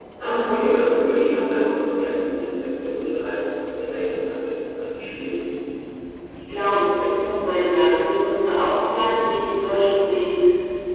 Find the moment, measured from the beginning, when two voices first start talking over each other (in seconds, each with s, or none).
none